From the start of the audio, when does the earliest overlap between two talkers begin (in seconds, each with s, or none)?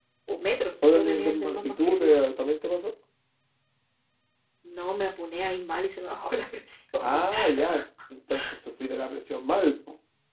0.8 s